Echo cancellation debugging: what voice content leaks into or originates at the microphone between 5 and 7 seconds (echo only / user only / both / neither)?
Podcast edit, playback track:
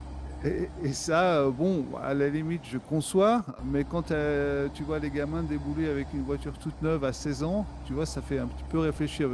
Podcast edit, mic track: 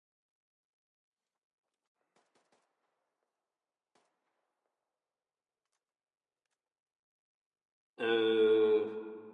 neither